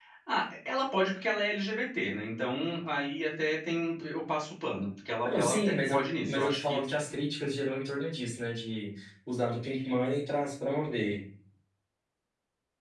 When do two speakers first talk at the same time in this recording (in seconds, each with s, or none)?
5.2 s